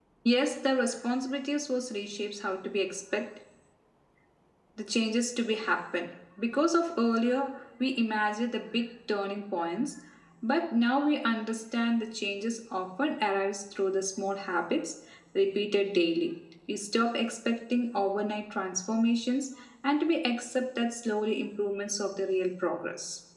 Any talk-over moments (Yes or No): No